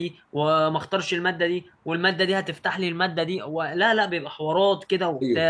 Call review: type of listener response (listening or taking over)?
listening